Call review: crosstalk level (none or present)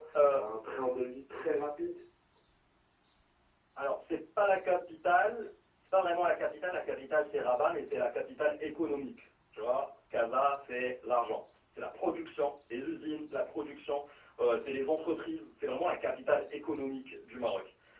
none